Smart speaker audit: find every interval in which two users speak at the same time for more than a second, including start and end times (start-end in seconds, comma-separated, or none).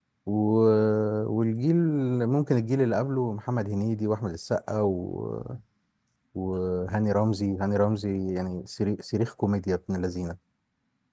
none